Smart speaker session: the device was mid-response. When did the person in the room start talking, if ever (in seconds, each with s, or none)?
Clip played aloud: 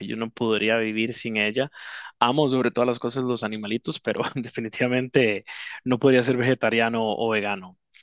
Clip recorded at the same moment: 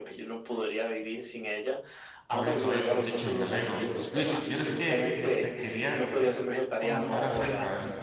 2.3 s